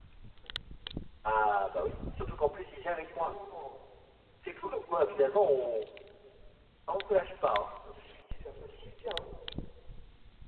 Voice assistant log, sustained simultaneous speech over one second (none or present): none